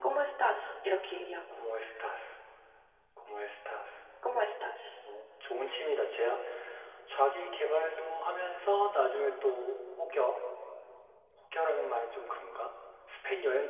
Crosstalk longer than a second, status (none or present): none